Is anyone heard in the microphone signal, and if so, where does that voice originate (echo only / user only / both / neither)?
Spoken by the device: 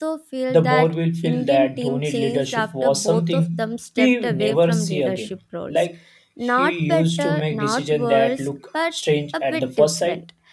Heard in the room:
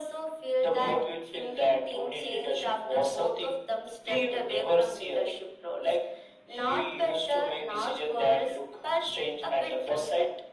echo only